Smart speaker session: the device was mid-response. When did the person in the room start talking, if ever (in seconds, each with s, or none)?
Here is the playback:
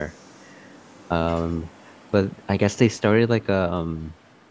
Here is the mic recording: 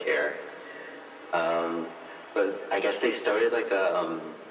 none